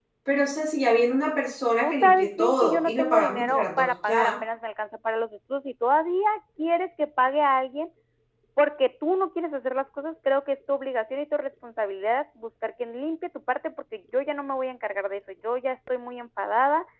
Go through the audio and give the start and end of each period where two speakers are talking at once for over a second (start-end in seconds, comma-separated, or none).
1.8-4.3